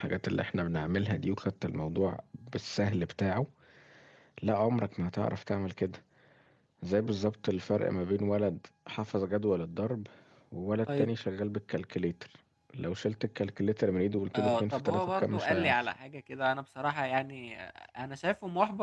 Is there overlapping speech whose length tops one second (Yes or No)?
Yes